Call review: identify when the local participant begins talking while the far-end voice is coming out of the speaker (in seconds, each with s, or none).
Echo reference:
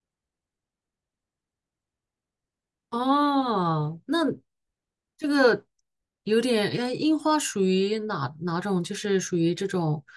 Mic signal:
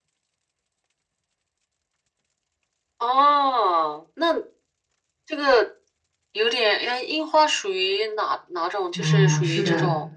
8.9 s